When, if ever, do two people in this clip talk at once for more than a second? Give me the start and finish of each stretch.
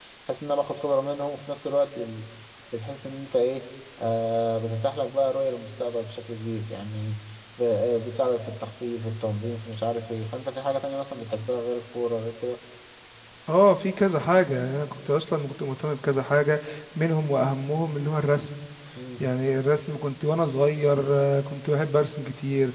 none

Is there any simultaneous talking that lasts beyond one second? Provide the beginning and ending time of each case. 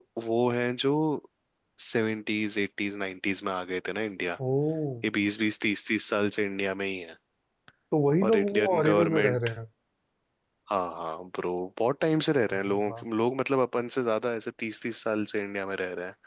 8.3-9.5

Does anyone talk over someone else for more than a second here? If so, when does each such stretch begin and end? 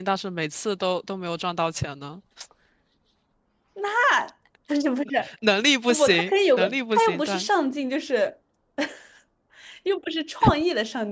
5.9-7.5

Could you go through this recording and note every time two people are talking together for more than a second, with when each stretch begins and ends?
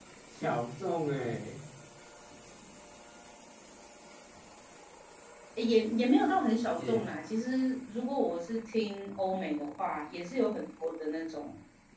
none

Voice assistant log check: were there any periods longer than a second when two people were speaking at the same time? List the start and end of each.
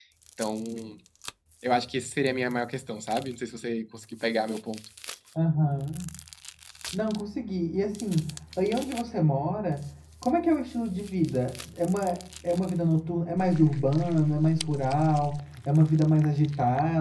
none

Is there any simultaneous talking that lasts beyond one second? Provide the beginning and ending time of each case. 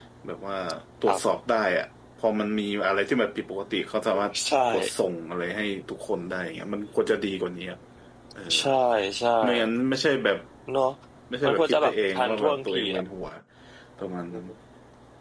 11.4-13.0

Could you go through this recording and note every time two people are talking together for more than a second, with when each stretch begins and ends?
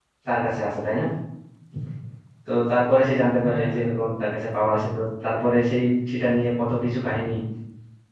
3.4-5.0

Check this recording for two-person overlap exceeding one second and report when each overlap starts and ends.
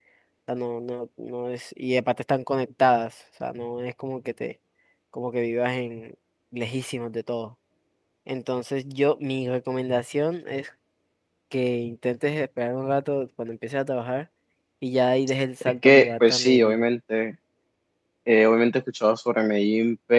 15.6-16.8

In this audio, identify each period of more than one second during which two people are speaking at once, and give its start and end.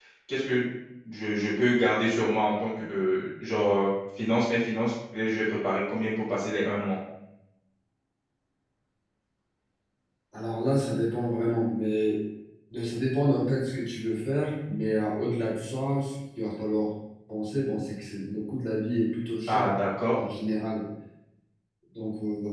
none

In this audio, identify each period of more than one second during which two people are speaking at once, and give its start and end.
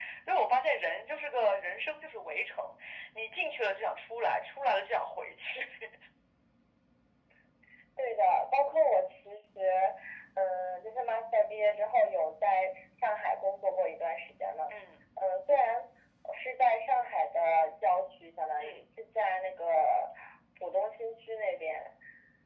none

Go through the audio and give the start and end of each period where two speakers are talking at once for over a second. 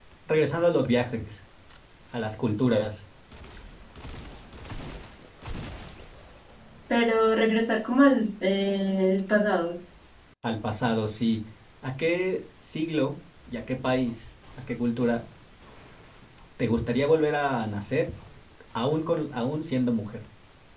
none

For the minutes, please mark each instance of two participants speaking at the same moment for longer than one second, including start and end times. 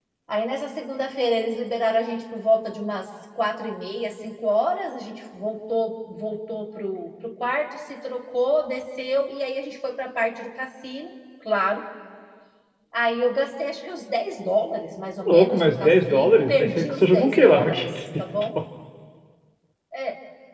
15.3-17.9

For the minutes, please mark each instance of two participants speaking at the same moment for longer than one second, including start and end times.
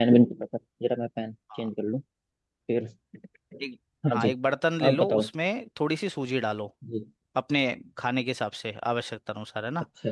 none

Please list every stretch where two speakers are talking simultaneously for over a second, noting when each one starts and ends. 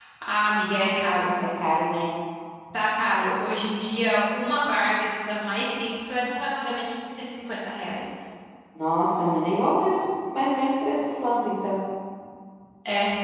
none

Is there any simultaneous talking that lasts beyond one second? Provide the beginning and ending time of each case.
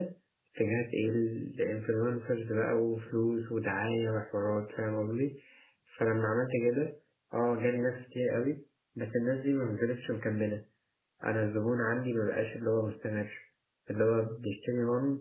none

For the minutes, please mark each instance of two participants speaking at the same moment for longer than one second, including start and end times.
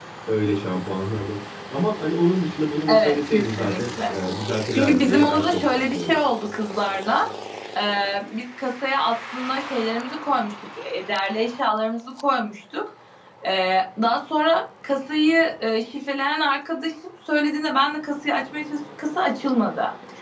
2.9-4.1, 4.7-6.2

